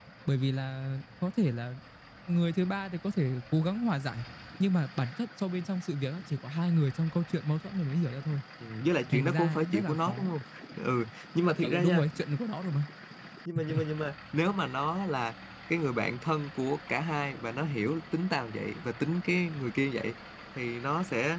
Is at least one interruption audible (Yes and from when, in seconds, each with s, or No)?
Yes, from 9.1 s